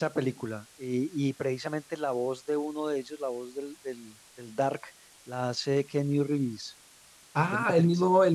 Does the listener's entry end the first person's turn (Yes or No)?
Yes